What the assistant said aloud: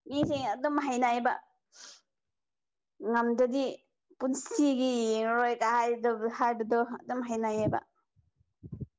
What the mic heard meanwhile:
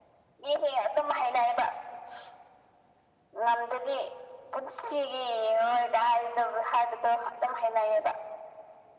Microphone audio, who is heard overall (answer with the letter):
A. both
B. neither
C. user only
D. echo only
D